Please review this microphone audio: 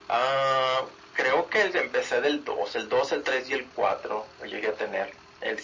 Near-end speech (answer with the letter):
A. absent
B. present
A